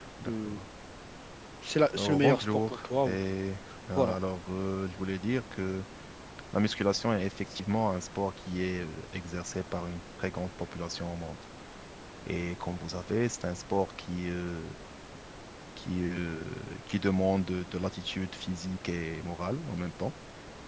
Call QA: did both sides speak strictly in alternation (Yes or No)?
No